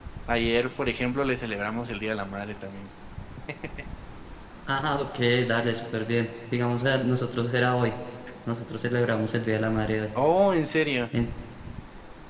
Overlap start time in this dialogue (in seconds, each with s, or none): none